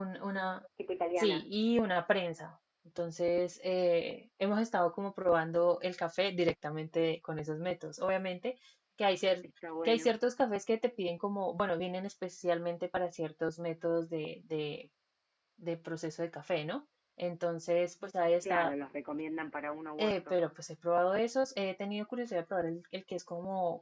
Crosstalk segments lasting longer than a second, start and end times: none

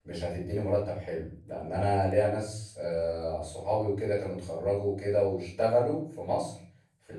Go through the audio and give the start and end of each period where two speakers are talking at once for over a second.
none

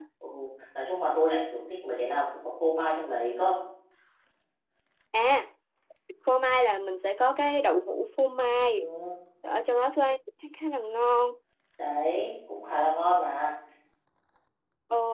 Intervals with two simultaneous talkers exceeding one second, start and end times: none

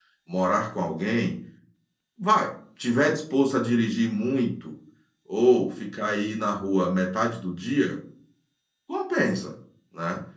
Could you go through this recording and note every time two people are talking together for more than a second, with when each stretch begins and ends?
none

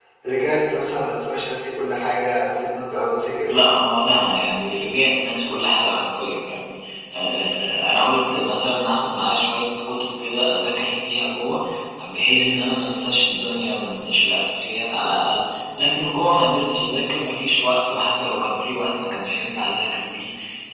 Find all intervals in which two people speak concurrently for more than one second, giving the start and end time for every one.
none

